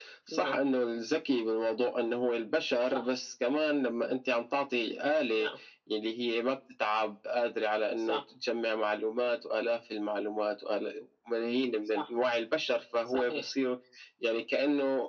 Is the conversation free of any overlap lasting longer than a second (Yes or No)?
Yes